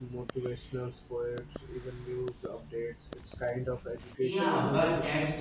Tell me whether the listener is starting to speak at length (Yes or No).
Yes